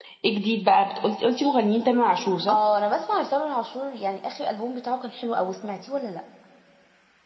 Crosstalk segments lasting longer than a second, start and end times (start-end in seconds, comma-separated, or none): none